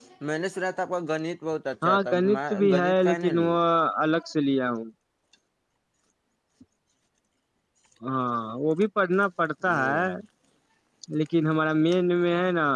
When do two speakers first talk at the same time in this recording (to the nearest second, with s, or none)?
2 s